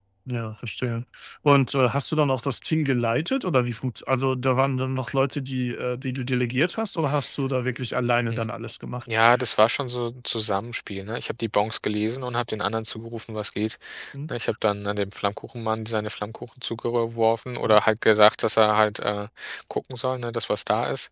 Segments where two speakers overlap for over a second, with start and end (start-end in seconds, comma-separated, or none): none